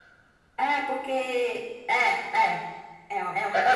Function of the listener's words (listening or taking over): taking over